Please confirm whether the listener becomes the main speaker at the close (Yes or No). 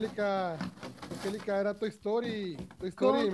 No